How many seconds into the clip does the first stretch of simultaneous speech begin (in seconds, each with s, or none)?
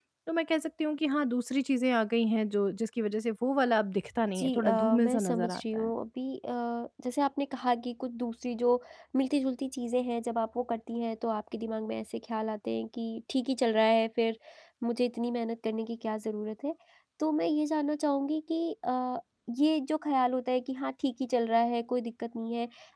4.3 s